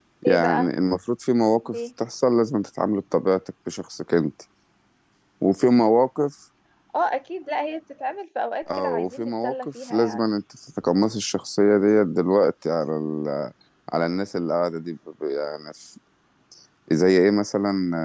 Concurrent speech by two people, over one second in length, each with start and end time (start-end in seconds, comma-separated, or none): 8.8-10.3